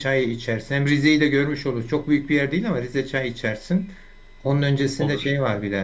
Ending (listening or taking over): listening